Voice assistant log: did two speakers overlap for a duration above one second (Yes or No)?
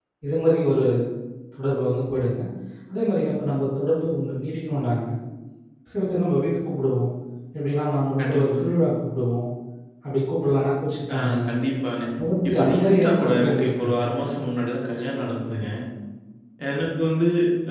Yes